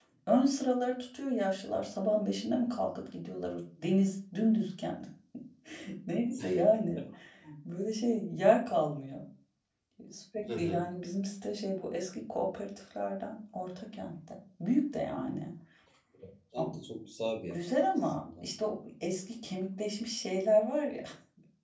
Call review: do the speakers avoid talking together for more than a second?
Yes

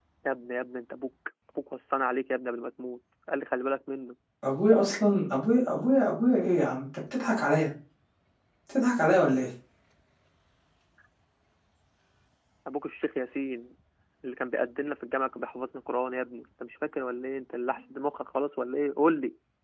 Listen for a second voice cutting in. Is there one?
No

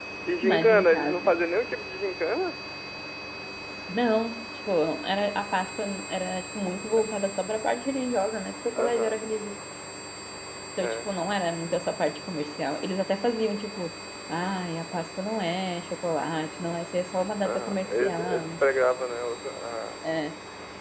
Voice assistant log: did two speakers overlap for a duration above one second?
Yes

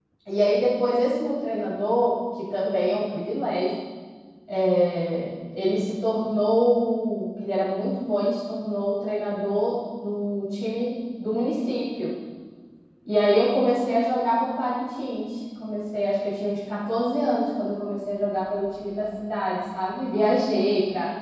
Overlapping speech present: No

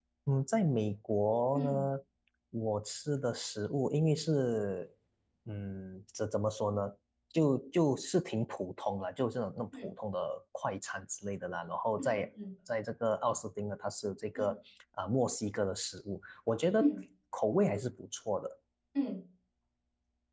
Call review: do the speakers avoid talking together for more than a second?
Yes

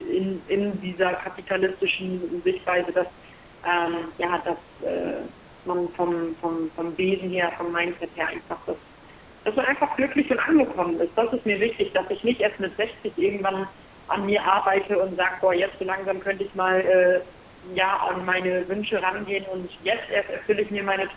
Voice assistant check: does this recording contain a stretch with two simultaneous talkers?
No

